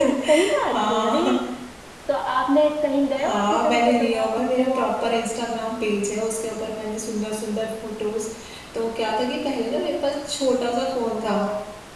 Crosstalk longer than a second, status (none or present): present